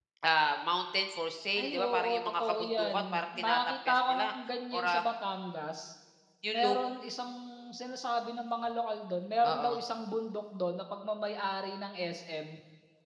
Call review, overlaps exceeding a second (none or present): present